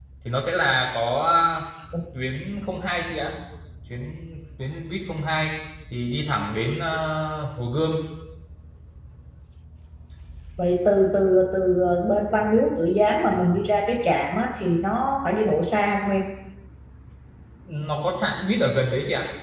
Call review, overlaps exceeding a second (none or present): none